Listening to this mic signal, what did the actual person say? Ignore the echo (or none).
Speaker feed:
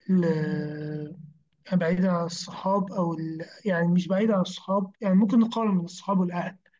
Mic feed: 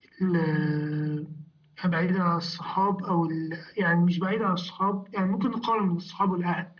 none